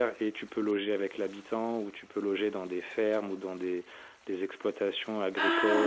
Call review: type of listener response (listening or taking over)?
taking over